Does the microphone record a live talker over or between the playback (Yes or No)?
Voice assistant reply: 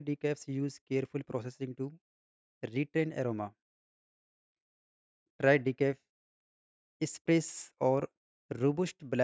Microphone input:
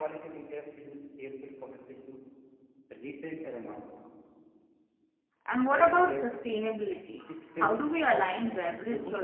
Yes